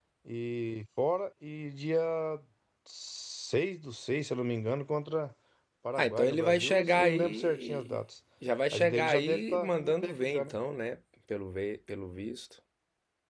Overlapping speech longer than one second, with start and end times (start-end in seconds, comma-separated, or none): 6.0-8.0, 8.7-10.5